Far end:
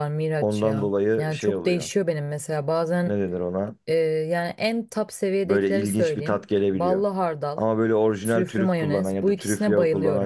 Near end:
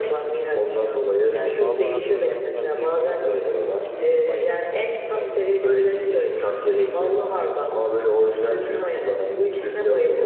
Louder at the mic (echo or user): echo